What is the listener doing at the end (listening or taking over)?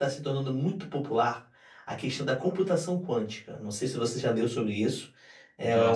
listening